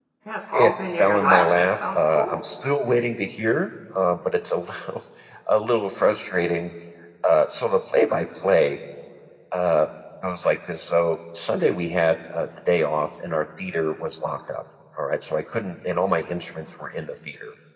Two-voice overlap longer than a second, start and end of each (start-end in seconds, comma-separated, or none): 0.5-2.4